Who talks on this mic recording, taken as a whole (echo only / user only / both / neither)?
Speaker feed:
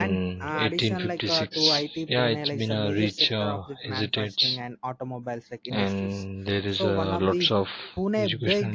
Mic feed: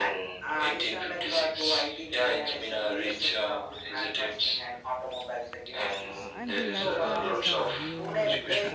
both